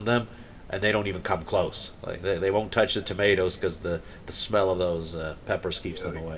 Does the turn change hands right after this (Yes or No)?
Yes